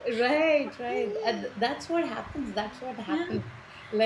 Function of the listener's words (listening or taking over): listening